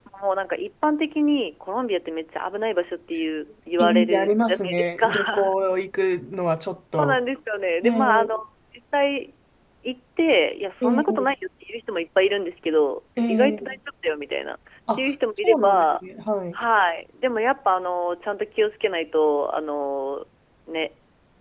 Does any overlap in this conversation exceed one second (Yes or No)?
Yes